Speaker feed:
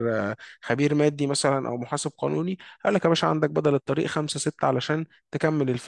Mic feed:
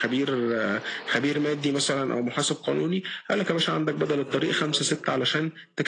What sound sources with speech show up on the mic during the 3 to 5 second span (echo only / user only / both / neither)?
both